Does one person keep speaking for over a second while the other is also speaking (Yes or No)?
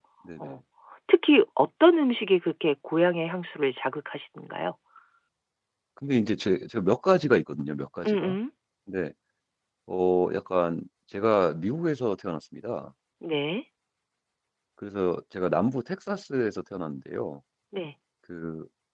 No